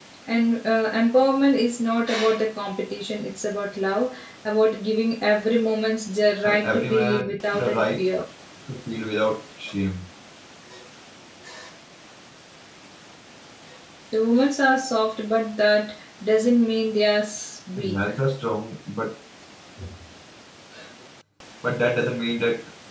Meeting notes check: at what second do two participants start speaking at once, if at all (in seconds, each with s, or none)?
6.4 s